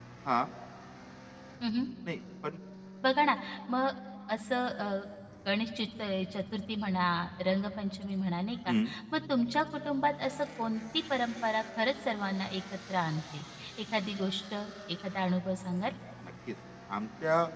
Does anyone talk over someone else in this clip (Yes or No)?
No